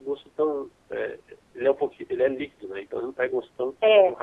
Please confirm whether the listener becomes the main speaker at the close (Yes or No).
No